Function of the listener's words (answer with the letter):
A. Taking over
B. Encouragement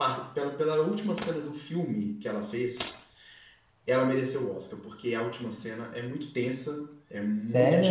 B